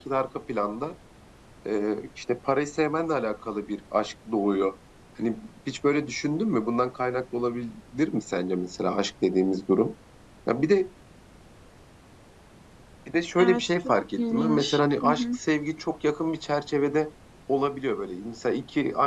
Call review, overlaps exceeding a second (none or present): present